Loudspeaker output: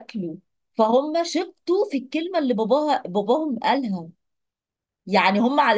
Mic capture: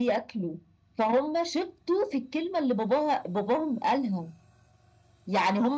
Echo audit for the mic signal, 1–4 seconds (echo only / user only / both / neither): echo only